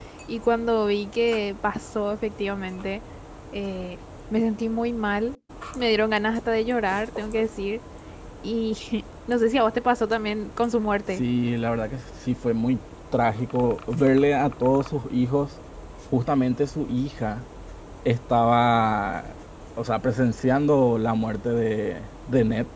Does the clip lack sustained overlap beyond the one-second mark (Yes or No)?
Yes